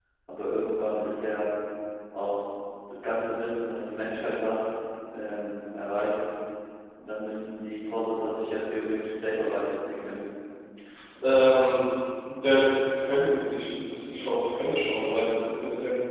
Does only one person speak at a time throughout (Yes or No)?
Yes